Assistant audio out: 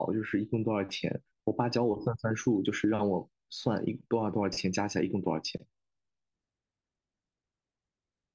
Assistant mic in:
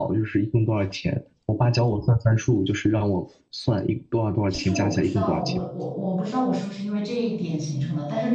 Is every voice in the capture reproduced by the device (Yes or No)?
No